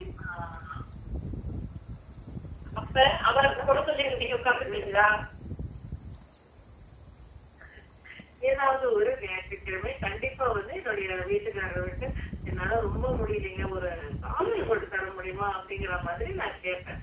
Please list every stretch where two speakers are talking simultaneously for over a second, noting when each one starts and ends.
3.3-4.8

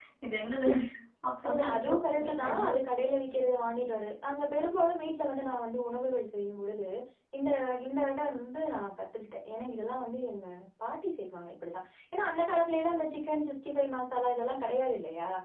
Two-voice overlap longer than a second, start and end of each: 1.5-2.7

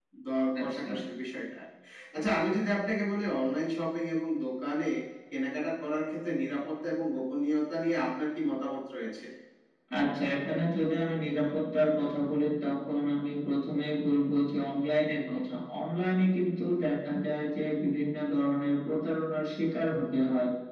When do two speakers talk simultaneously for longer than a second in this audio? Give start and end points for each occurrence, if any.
none

